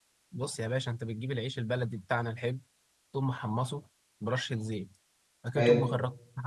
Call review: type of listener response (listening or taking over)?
listening